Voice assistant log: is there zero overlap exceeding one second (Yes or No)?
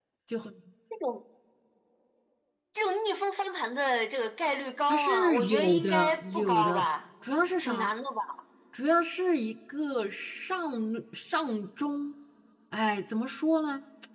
No